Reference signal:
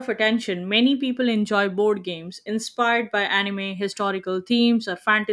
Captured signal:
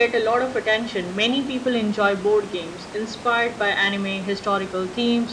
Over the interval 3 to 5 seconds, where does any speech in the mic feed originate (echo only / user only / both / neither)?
echo only